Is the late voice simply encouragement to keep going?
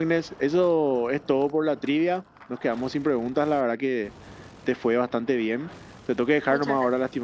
Yes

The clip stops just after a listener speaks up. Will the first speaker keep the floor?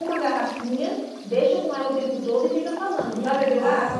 No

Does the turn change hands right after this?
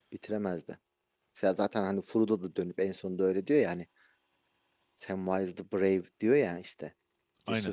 No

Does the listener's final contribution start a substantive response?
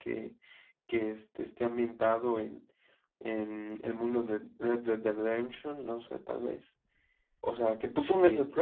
No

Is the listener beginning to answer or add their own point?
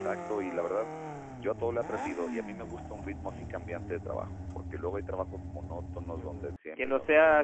Yes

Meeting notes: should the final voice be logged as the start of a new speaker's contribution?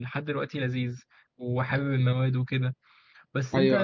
No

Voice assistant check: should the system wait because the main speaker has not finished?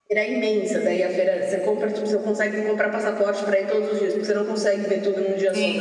No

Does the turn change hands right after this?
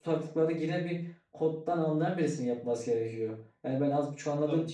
No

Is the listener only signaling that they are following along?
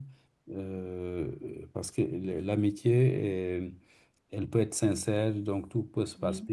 Yes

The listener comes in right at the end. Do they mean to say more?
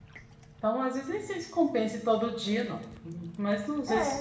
Yes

